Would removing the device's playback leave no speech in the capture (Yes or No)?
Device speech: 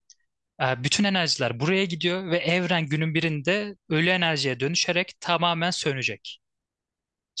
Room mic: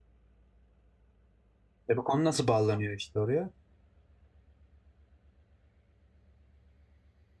No